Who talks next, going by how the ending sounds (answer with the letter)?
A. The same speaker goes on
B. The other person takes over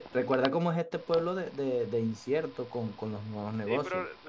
B